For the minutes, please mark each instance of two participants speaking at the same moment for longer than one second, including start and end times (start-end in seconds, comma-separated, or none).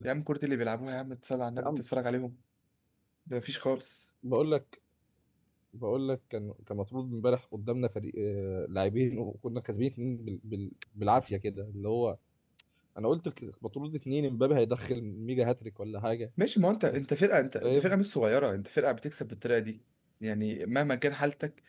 none